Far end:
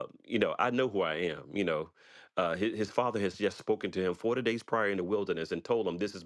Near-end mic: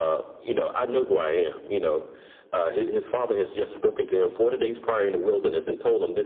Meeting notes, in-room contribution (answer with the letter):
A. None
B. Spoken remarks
A